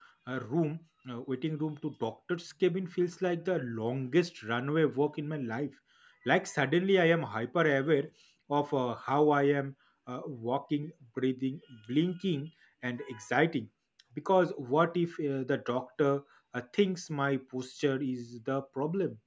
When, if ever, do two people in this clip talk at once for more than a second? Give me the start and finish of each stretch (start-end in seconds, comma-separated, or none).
none